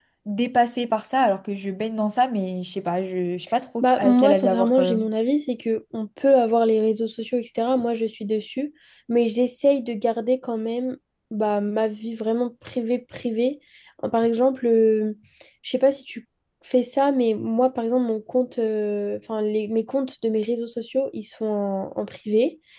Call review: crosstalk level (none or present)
present